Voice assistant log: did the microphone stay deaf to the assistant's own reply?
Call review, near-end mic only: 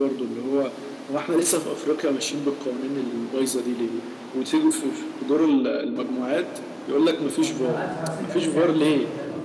No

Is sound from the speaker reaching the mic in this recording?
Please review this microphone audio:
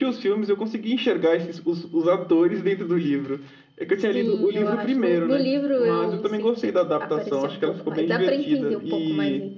Yes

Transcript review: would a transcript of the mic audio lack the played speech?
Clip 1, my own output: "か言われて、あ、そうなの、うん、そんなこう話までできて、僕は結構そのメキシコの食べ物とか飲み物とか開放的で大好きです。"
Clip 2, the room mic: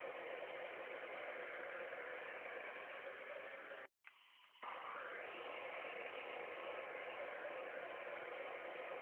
Yes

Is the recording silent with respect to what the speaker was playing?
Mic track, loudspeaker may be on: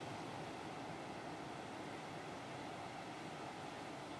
Yes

